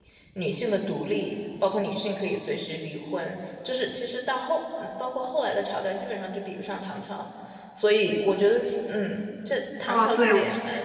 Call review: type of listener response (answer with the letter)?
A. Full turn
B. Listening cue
A